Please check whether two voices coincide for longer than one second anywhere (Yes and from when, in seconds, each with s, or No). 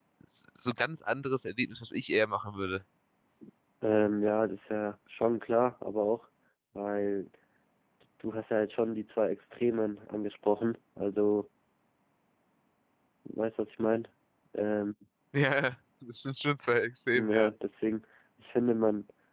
No